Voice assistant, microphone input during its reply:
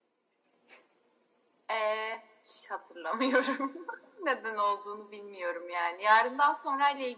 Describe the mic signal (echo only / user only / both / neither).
echo only